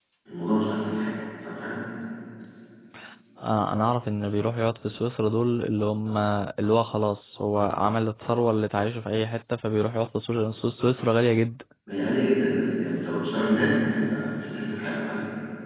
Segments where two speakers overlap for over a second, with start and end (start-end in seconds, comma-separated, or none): none